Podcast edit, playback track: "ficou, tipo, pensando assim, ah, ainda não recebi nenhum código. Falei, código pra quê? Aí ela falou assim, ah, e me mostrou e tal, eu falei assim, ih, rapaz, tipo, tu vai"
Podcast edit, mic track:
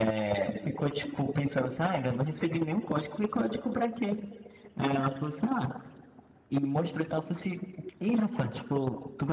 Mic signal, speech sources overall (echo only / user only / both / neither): echo only